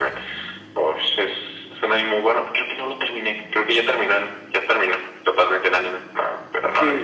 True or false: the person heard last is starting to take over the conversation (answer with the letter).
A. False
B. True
B